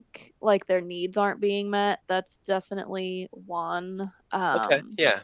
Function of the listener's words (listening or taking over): taking over